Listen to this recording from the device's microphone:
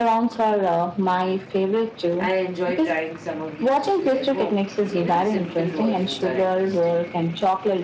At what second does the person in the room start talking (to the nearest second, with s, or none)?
2 s